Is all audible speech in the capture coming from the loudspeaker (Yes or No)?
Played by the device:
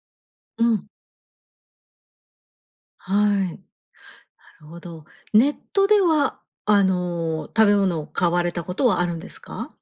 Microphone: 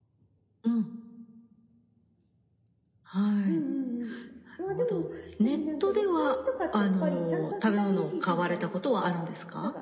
No